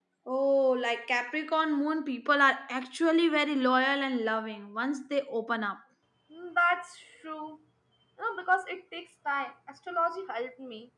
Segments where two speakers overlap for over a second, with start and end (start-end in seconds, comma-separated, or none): none